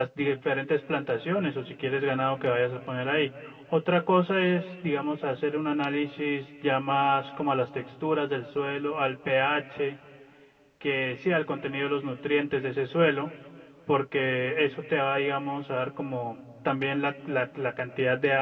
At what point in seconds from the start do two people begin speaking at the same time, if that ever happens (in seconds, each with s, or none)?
none